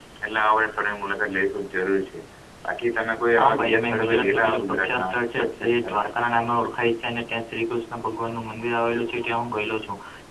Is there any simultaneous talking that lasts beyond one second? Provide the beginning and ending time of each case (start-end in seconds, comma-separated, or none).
3.4-6.0